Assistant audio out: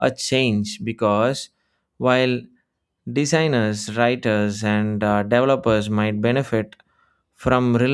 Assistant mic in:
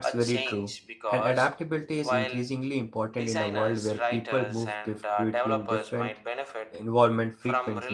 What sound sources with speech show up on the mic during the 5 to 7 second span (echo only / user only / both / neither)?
both